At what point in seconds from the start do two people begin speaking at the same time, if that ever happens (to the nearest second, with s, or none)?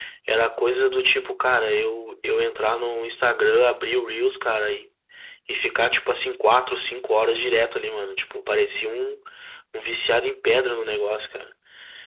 none